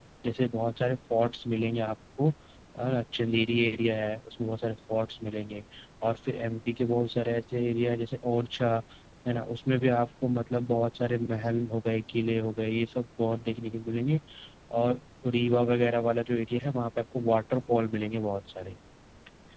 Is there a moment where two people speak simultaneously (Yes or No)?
No